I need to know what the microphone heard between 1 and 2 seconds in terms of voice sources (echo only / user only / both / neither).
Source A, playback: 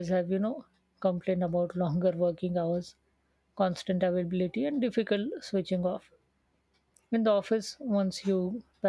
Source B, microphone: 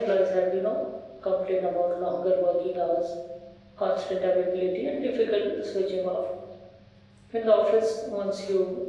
echo only